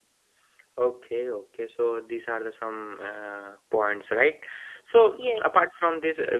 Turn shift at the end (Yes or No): No